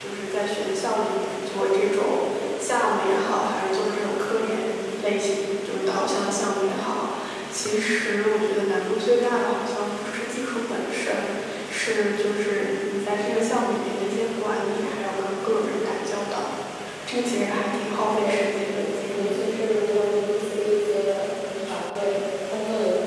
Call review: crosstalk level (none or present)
present